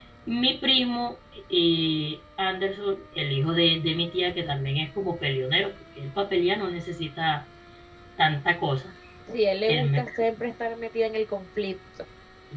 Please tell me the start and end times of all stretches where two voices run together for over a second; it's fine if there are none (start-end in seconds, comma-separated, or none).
none